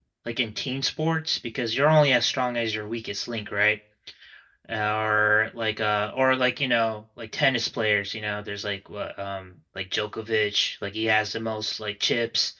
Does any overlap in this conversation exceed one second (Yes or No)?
No